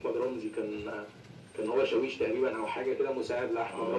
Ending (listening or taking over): taking over